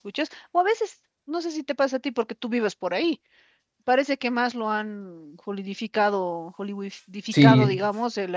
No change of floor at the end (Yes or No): Yes